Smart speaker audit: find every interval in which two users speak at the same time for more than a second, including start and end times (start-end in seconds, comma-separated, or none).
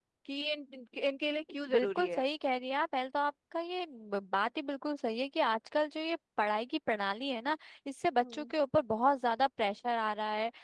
none